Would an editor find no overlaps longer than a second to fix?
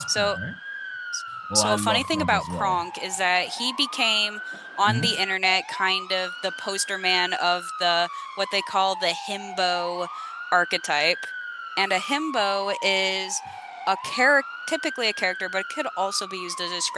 No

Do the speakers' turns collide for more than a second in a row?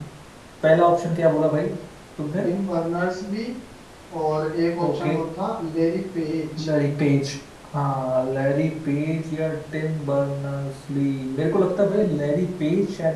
No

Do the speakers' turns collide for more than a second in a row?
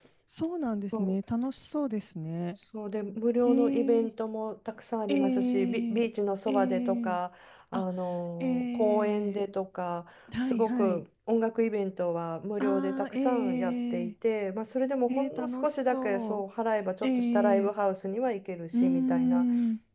Yes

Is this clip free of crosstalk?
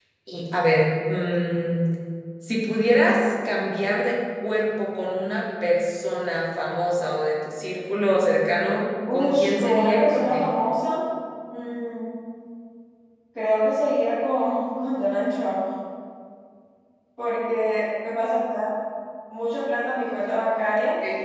No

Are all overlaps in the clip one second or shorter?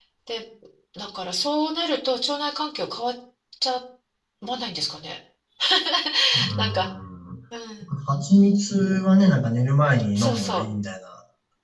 Yes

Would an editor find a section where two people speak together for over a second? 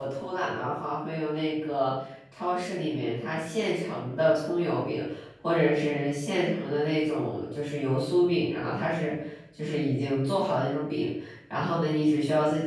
No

